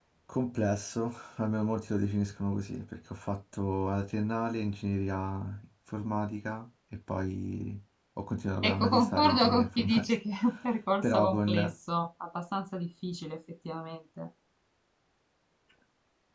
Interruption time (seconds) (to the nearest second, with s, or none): 9 s